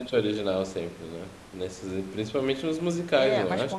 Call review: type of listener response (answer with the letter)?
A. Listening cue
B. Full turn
B